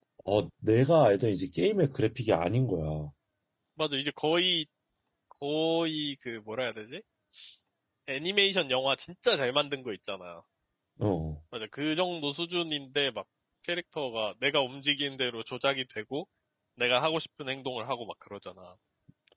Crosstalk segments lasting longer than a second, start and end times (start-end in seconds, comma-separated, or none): none